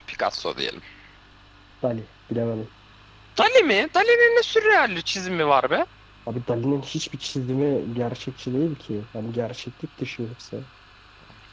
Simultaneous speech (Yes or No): No